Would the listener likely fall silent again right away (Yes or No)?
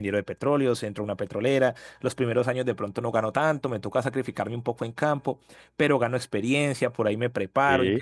Yes